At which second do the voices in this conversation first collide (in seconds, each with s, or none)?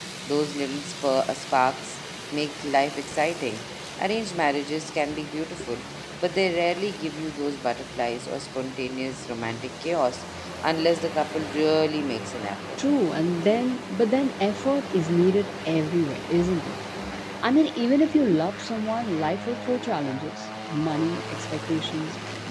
none